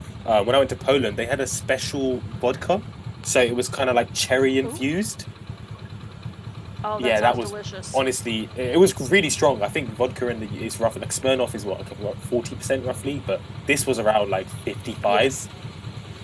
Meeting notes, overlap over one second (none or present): none